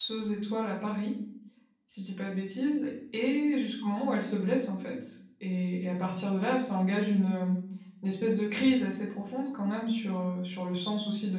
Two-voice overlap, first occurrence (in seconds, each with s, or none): none